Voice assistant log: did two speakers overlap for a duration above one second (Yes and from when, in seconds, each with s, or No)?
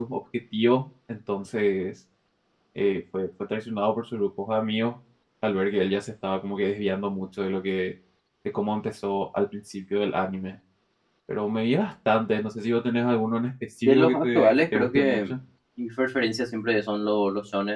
Yes, from 13.8 s